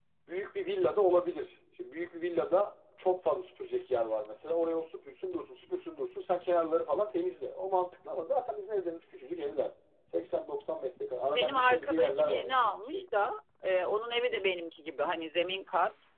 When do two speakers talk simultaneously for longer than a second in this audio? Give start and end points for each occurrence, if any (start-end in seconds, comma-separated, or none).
11.3-13.0